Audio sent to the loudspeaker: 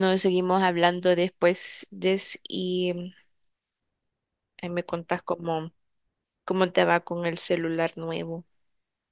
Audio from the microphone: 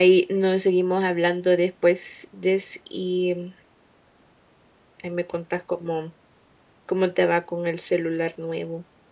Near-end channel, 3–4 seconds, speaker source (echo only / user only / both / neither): echo only